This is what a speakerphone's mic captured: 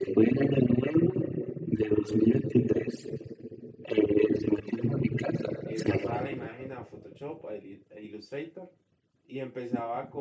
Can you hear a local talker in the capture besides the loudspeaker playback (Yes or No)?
Yes